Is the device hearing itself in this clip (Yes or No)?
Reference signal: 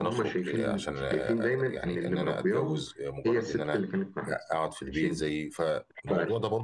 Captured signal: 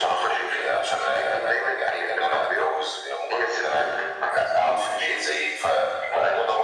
Yes